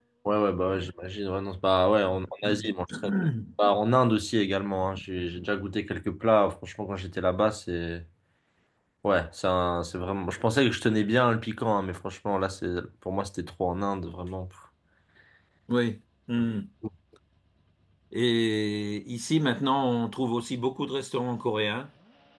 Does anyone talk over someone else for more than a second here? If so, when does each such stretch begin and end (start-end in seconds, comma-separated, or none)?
2.1-3.3